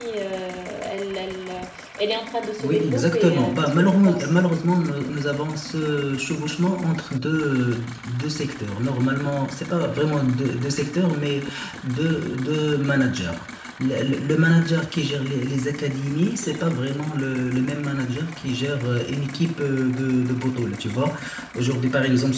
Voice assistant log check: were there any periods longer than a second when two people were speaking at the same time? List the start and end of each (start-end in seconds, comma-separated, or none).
2.6-4.3